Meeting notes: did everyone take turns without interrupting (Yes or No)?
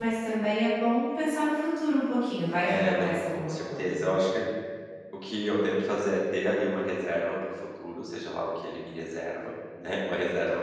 No